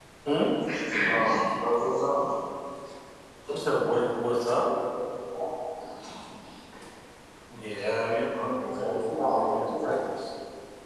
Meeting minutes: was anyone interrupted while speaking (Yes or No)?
Yes